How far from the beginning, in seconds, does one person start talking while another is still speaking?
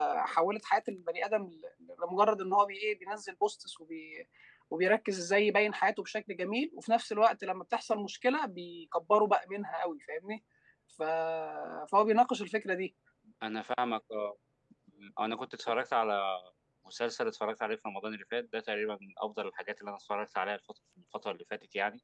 none

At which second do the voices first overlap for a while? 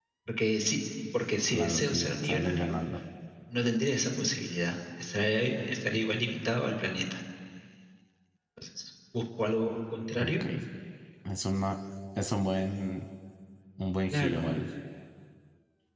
1.5 s

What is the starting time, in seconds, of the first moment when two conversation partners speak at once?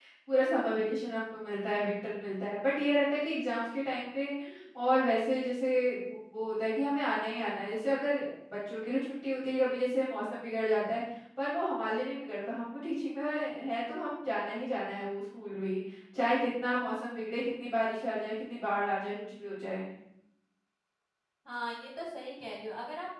none

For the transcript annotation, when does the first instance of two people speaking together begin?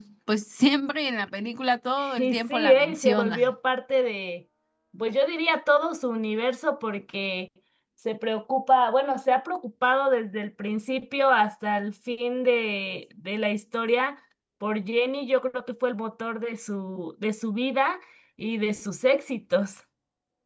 2.0 s

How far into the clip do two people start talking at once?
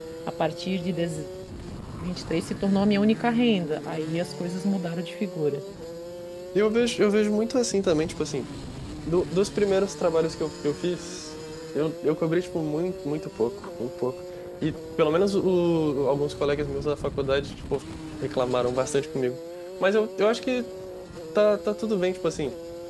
none

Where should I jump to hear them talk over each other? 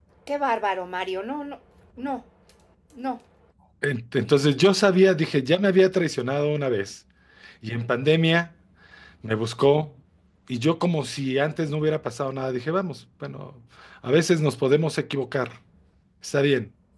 none

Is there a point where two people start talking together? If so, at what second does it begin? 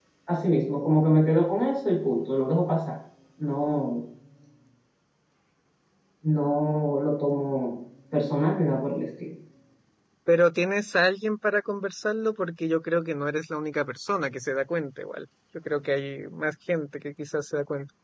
none

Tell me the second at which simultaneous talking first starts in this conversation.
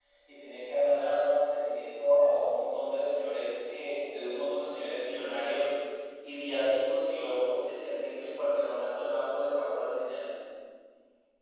none

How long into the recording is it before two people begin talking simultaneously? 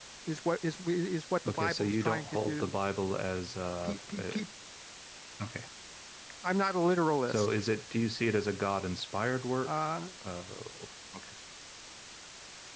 1.5 s

